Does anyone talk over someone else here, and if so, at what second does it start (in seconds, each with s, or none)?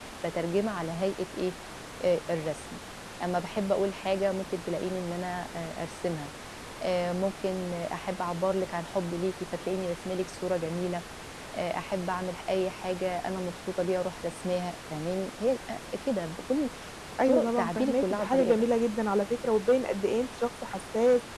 17.3 s